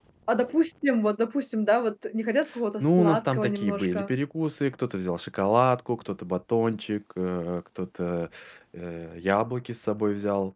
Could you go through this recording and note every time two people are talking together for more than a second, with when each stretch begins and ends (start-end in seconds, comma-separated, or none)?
2.8-4.1